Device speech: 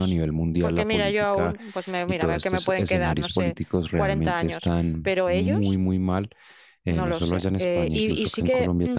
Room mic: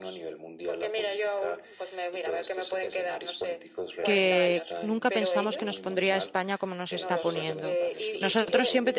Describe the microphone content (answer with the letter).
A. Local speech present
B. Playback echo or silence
A